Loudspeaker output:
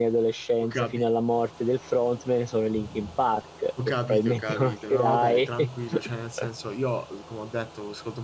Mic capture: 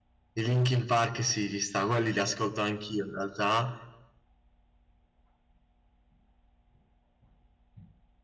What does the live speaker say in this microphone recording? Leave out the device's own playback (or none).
i Linkin Park sì, ci sta, quelli li ascolto anch'io in realtà.